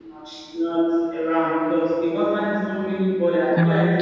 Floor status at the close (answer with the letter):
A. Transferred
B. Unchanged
B